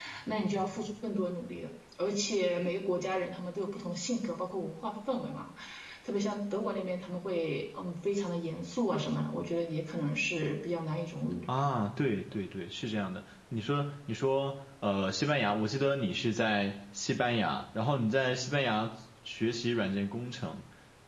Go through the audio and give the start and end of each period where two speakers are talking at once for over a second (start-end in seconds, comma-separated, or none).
none